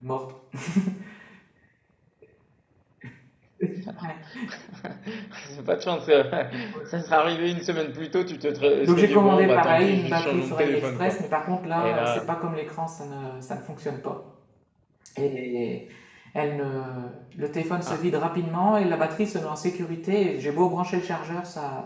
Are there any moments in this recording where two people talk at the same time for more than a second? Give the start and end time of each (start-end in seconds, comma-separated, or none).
8.8-11.3